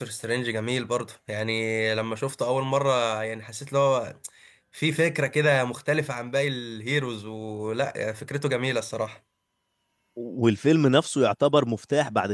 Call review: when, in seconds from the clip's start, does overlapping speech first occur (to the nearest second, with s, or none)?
none